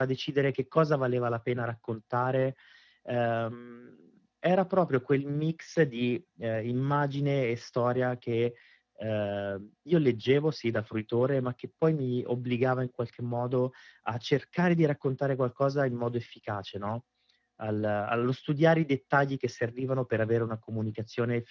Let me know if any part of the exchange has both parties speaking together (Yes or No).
No